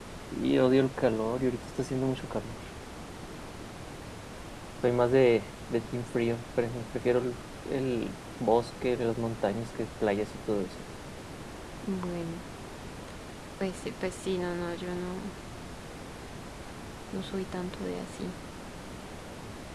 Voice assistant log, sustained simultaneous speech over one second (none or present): none